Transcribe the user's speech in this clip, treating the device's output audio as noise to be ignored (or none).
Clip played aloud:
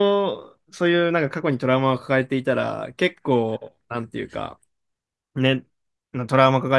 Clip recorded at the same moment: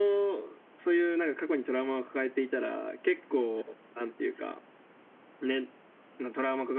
none